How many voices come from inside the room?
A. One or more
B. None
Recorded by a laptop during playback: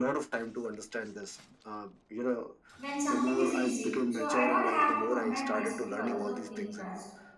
A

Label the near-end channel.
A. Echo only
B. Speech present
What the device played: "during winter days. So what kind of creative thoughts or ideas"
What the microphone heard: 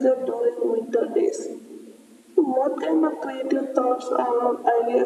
A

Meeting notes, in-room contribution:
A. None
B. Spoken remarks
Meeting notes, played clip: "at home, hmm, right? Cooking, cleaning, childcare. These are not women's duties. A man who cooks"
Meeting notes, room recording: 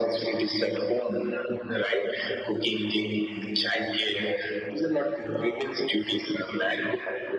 A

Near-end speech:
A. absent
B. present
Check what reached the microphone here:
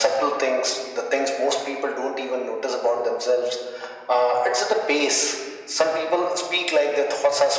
A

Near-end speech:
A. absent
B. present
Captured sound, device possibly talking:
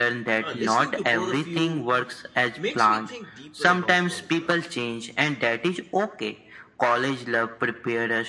B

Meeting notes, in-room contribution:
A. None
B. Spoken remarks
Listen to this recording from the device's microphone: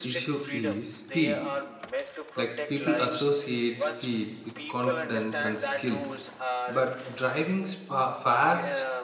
B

